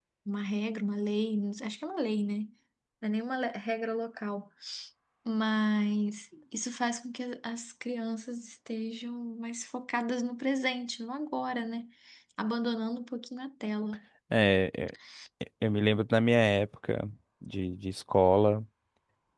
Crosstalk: none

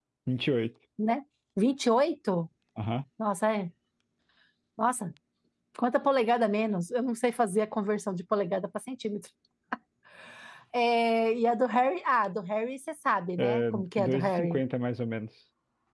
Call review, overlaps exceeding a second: present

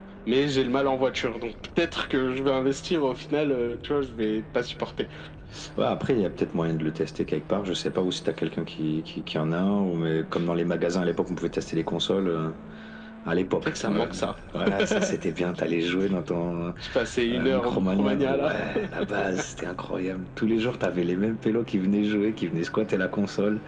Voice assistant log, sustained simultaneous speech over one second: present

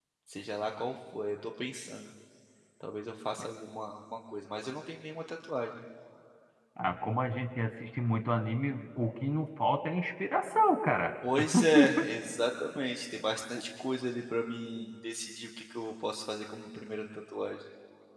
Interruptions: none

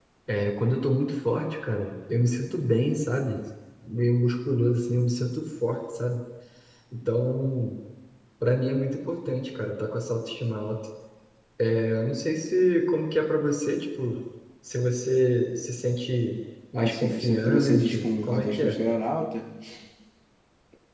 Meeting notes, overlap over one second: present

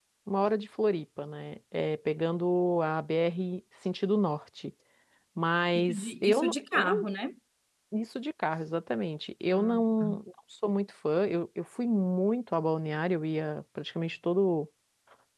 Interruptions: present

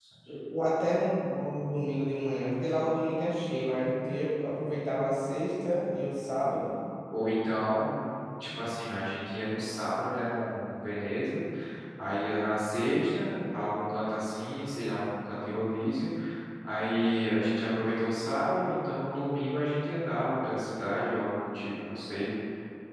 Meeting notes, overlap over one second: none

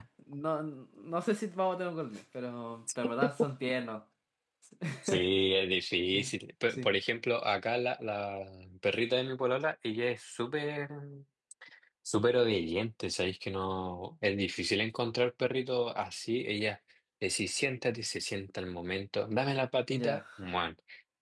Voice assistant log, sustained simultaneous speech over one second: none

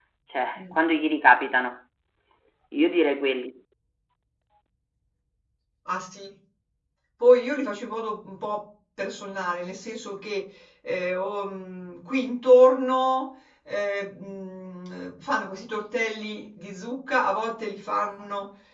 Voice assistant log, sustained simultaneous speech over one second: none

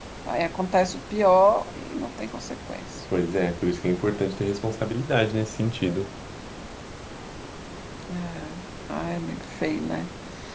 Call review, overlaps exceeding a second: none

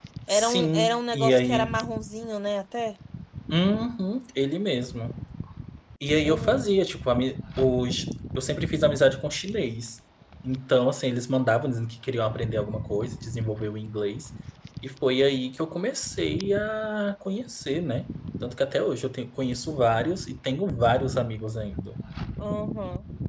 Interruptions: present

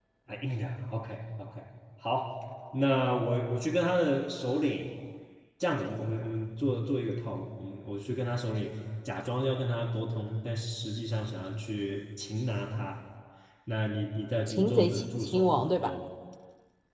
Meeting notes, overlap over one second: present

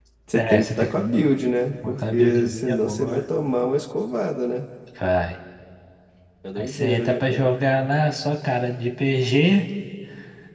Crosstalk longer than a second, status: present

